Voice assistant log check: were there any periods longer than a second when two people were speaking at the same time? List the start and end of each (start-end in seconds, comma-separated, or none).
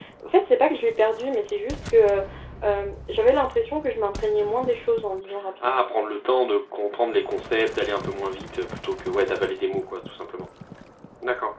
none